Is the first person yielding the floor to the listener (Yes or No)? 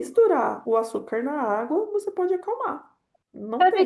Yes